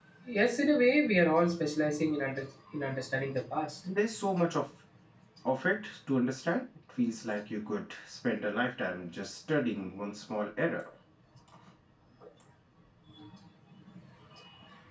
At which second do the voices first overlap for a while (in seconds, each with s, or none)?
none